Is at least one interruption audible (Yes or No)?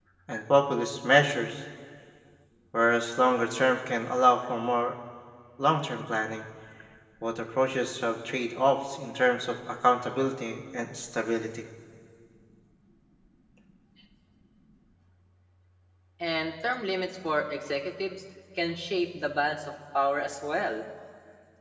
No